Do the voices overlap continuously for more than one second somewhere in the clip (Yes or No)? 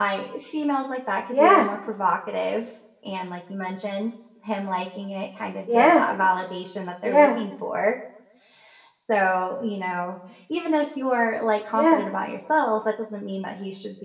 No